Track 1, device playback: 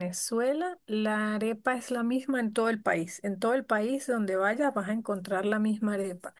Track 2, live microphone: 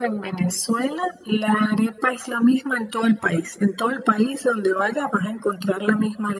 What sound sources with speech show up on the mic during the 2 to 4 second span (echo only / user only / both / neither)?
echo only